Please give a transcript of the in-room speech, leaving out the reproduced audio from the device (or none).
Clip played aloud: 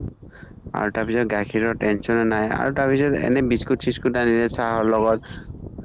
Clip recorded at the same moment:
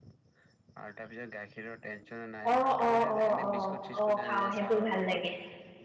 অ অ', অ', অ', অ', খাওঁ ভাল লাগে।